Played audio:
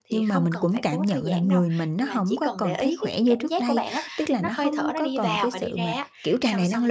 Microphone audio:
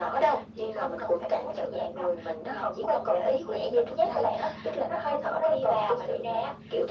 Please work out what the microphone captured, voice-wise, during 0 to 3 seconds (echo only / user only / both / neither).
echo only